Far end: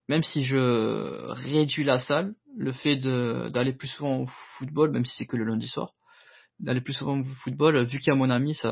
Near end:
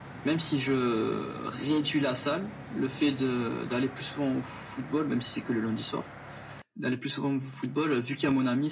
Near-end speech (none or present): none